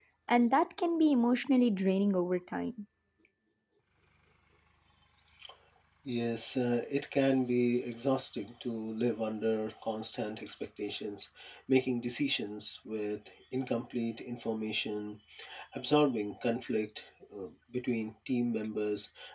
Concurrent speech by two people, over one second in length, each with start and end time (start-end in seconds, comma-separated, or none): none